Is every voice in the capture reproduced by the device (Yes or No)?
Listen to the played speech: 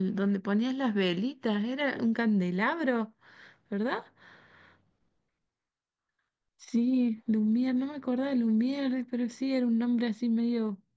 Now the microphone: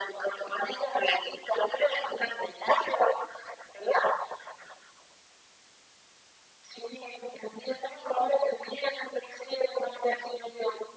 Yes